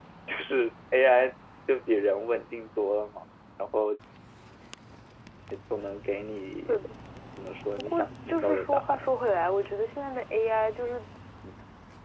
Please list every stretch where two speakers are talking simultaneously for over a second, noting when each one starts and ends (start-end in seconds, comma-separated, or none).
7.8-9.1